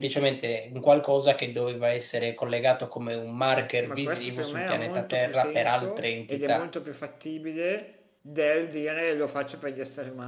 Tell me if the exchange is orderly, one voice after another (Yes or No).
No